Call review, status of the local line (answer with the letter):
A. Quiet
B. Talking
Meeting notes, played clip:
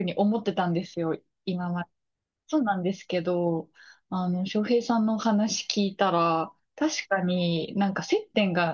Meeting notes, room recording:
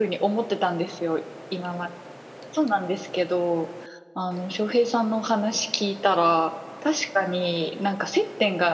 A